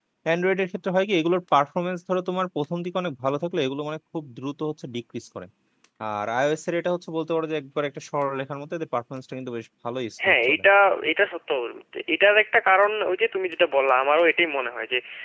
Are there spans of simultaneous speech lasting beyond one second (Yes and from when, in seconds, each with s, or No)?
No